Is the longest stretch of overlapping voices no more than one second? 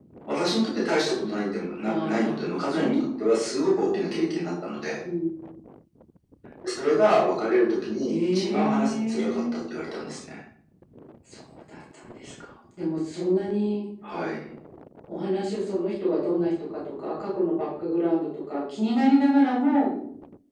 No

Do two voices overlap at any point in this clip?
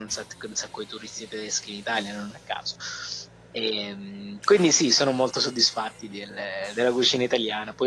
No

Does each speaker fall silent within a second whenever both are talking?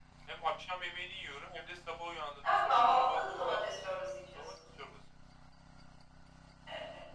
No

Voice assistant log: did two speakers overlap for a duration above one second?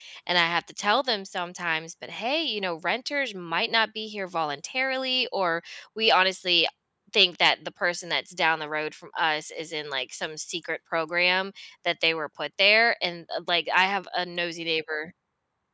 No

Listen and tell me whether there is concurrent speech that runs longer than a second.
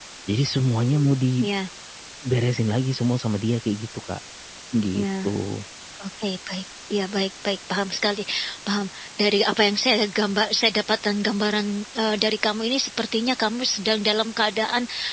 No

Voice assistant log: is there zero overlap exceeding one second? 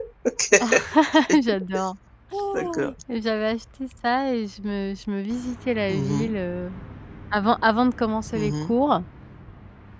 Yes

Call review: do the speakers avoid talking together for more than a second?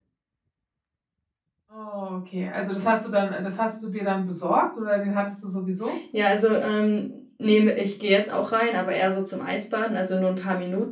Yes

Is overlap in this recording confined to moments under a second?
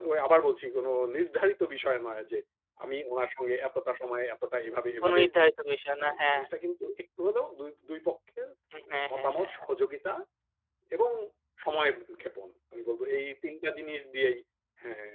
Yes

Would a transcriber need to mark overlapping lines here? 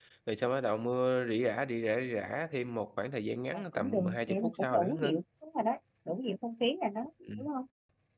Yes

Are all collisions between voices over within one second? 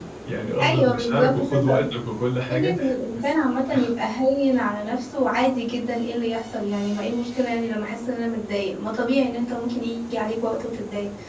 No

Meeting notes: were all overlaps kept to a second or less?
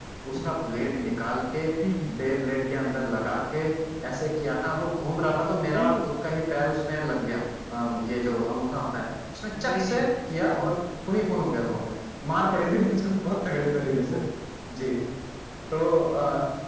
Yes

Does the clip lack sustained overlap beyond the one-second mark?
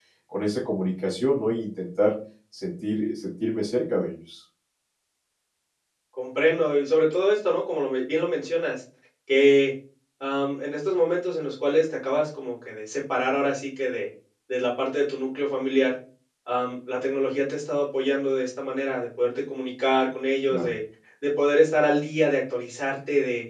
Yes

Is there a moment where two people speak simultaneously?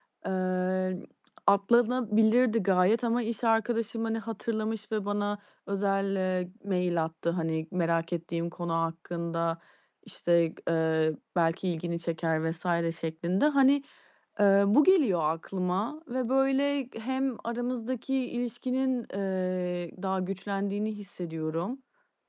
No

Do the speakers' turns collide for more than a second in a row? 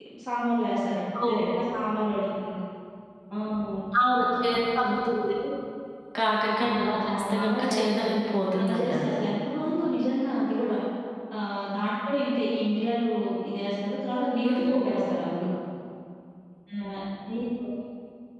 Yes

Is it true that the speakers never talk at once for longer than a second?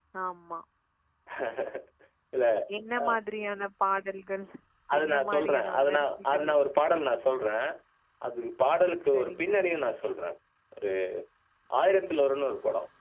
No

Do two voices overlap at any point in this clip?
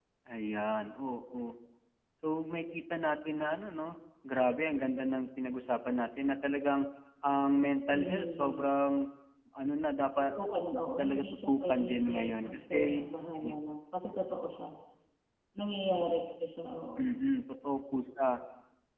Yes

